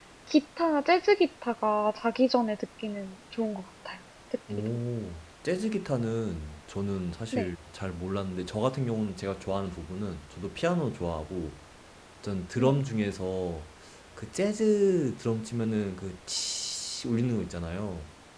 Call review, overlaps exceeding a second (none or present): none